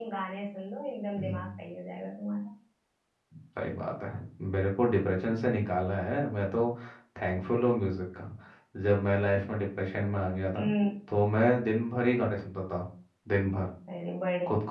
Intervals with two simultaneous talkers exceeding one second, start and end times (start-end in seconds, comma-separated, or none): none